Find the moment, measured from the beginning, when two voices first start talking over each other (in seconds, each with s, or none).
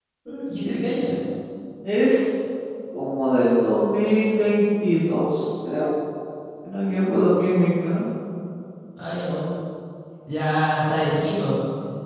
none